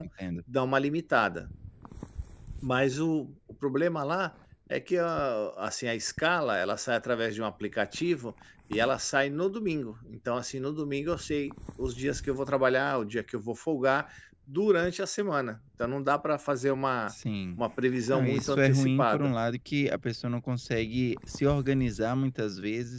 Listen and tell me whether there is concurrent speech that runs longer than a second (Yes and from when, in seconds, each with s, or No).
Yes, from 18.1 s